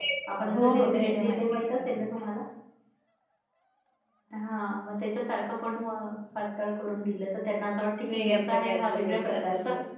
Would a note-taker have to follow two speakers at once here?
Yes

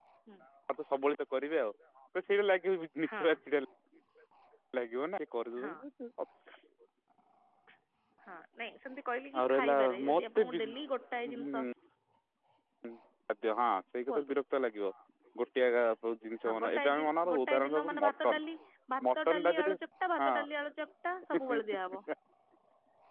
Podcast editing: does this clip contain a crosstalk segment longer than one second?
Yes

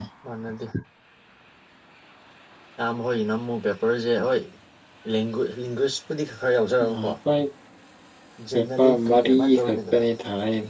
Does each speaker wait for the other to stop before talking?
No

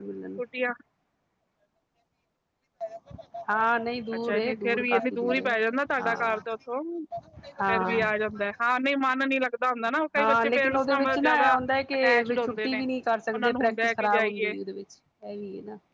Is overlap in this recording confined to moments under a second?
No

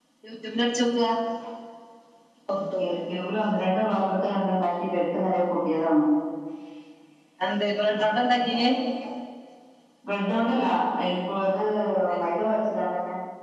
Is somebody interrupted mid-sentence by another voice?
No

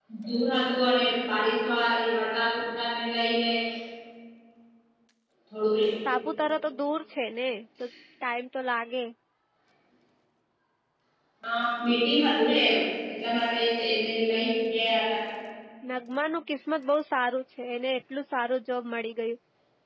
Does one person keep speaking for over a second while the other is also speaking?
No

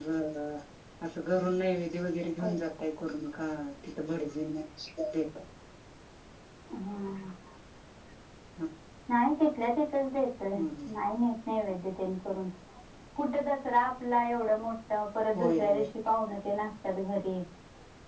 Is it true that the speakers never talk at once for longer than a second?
Yes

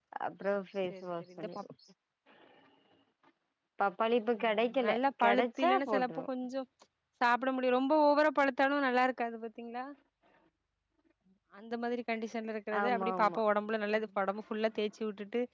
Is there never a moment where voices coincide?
No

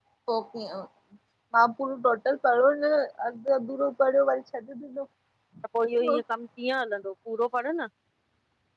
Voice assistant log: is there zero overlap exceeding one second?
Yes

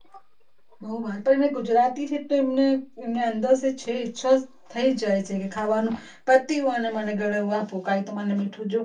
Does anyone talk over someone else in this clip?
No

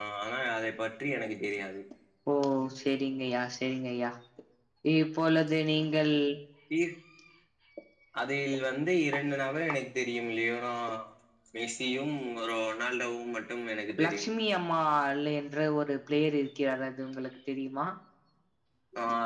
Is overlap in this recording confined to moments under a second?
Yes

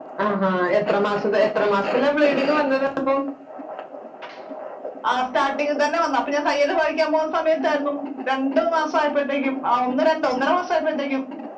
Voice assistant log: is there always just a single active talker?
Yes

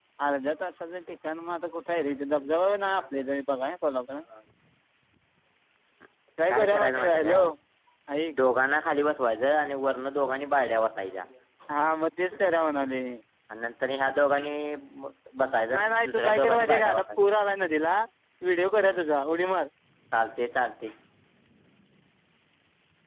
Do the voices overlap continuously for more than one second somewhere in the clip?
Yes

